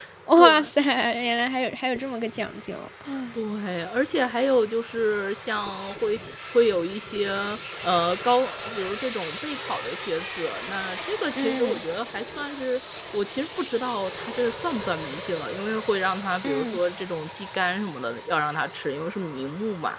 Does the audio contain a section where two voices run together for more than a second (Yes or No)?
No